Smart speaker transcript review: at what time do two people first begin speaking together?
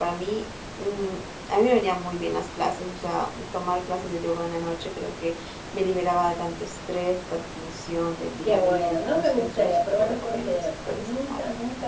8.4 s

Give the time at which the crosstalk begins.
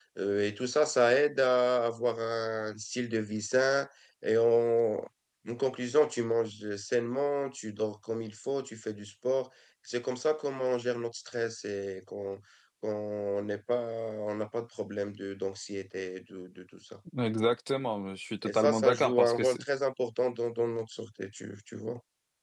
18.4 s

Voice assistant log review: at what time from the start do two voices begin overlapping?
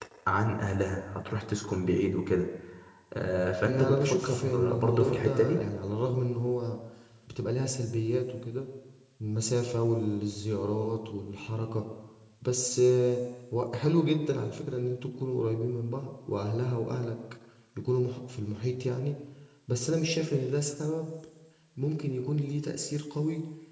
3.6 s

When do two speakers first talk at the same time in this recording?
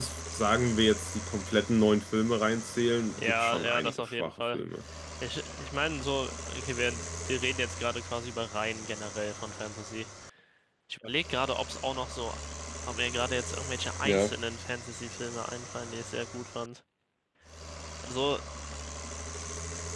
3.2 s

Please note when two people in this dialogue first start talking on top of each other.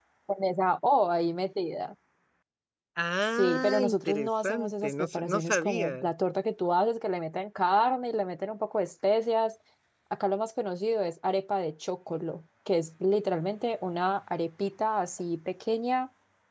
3.4 s

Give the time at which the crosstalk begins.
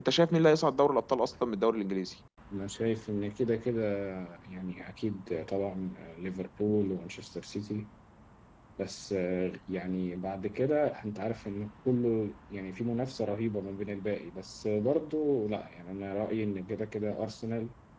none

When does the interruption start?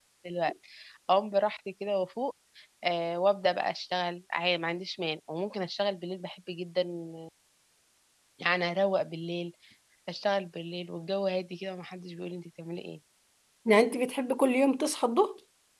none

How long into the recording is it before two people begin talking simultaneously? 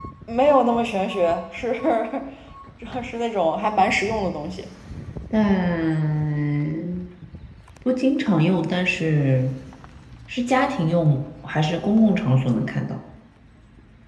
none

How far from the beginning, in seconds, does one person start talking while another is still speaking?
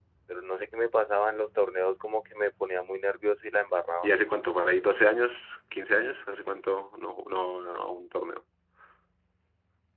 none

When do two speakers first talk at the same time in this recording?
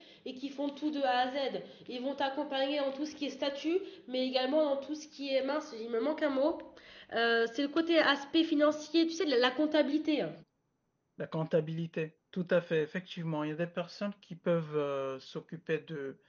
none

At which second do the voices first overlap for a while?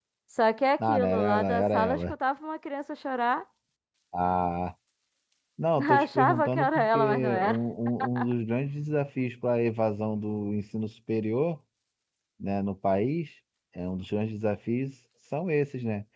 0.8 s

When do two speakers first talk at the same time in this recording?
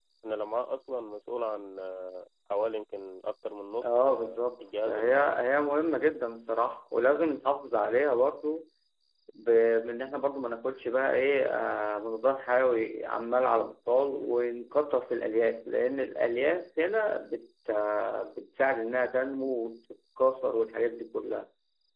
3.8 s

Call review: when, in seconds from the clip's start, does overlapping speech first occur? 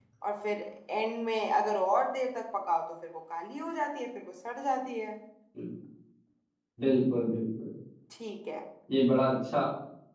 none

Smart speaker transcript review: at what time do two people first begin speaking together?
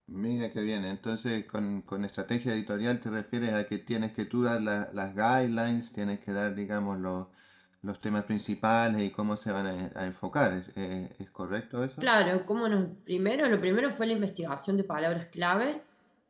none

